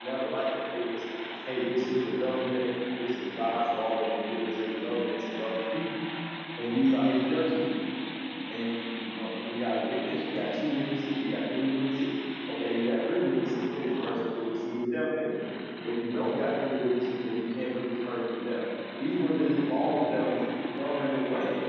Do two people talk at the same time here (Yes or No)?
No